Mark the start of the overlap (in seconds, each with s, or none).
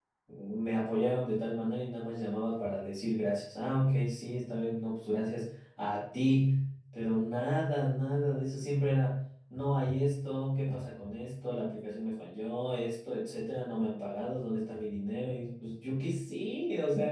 none